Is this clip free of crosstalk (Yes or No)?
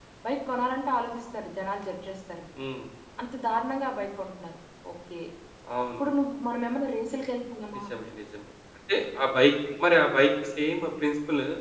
Yes